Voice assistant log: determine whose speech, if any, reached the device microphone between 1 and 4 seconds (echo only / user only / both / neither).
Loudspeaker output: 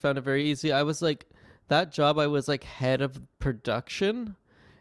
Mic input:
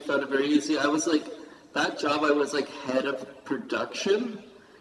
echo only